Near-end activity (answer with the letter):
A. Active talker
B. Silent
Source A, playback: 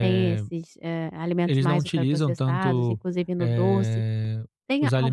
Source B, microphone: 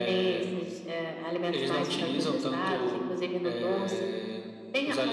A